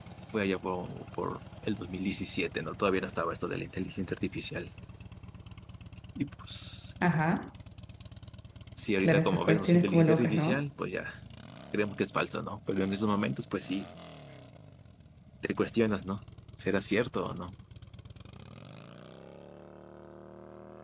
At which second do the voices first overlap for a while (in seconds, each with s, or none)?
9.0 s